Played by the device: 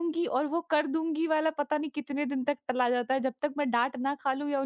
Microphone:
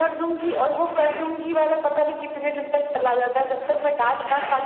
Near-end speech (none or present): none